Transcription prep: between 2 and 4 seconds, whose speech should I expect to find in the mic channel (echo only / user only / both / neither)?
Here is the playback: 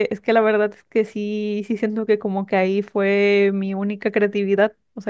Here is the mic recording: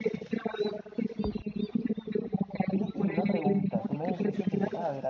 both